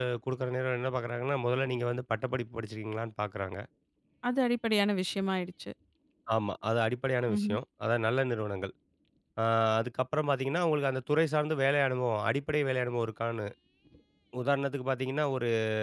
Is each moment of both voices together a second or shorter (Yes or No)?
Yes